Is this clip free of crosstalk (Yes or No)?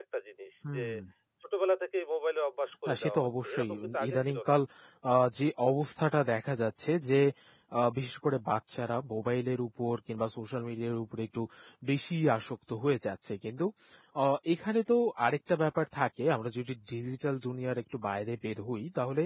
No